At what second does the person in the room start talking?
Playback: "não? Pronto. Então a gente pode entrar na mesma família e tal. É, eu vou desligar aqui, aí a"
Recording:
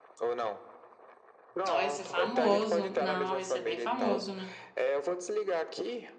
1.6 s

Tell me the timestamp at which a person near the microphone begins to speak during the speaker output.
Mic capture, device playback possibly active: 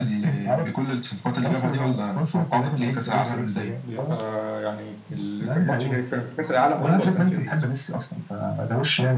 3.7 s

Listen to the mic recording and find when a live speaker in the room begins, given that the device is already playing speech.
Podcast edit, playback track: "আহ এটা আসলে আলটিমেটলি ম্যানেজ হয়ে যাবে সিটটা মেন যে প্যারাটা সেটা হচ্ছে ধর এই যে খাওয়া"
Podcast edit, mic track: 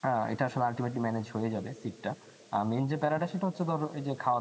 none

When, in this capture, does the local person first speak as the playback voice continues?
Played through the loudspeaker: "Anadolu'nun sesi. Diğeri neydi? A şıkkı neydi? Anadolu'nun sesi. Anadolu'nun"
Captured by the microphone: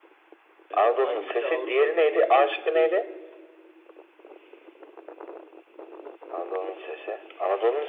0.7 s

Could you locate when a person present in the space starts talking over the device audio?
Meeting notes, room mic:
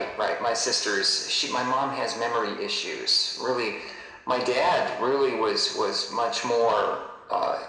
none

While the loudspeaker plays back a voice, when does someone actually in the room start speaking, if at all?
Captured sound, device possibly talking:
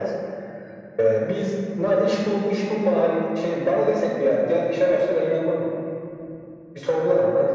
none

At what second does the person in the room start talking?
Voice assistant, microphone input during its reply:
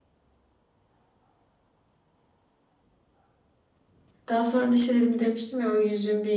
4.3 s

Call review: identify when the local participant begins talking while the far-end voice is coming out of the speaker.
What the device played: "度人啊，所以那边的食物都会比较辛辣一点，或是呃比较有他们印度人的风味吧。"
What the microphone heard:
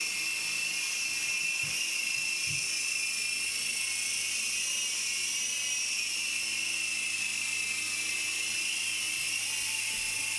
none

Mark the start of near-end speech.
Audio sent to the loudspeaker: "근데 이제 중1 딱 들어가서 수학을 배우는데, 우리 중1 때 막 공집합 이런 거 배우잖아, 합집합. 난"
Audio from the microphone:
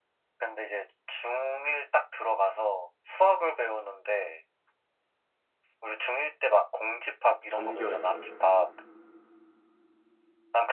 7.5 s

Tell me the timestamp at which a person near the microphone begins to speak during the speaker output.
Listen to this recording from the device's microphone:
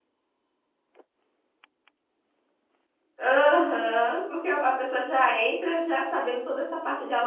3.2 s

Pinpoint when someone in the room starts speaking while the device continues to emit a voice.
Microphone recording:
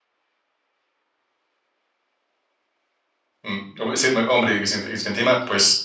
3.4 s

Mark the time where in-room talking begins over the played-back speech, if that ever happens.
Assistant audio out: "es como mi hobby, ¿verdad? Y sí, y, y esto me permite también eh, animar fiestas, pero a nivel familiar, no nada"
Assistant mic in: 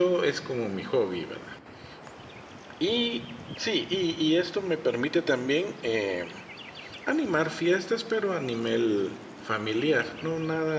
none

